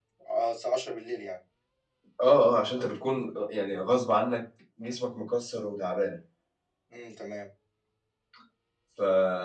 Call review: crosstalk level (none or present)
none